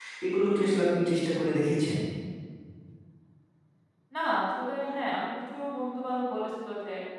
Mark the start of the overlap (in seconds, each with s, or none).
none